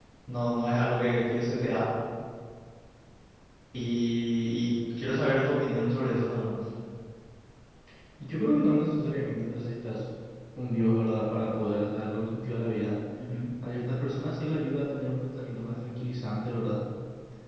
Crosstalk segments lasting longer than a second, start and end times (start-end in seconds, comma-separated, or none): none